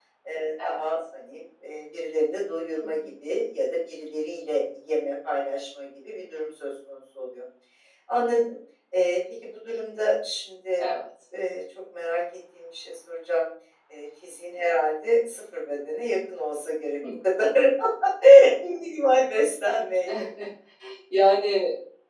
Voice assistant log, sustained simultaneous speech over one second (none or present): none